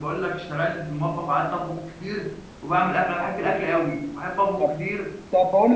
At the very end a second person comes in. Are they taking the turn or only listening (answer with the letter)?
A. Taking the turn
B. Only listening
A